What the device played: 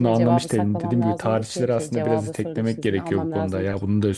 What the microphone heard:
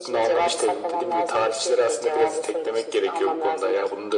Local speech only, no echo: none

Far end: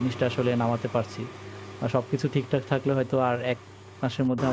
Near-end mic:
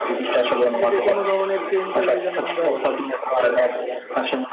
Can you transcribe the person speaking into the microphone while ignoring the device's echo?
যে যে কোনো ধরনের চেঞ্জ হইলে যেন আমরা

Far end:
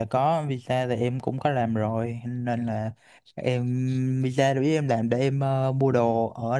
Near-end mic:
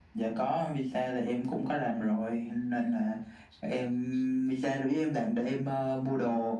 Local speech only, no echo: none

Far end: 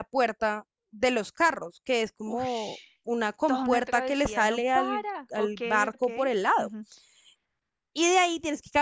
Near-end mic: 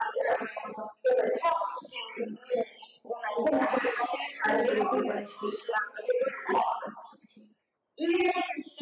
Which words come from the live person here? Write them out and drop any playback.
Ah, preocupadísimos.

